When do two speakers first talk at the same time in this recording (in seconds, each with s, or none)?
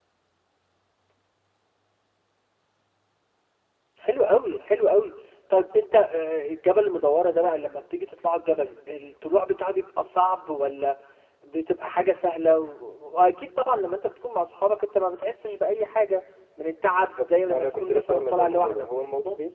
16.9 s